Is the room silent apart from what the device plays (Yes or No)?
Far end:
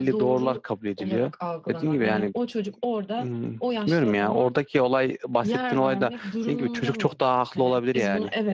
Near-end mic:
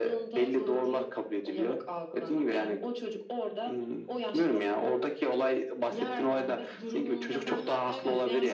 No